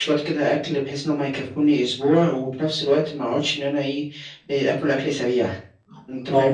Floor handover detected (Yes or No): Yes